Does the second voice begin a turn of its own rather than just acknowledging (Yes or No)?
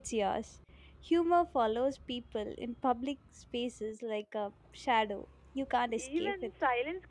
Yes